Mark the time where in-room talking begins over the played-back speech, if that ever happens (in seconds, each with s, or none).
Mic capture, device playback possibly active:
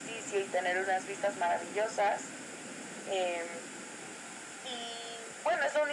none